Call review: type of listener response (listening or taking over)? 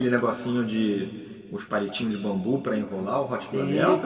taking over